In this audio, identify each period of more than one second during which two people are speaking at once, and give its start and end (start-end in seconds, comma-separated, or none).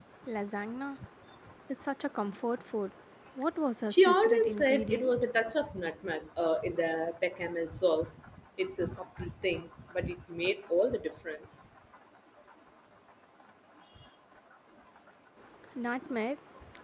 3.9-5.1